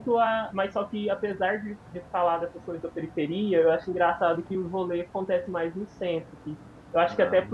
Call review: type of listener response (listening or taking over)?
listening